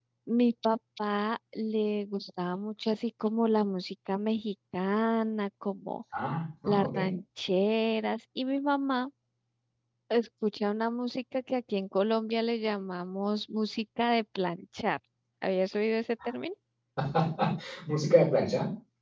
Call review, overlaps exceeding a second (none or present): none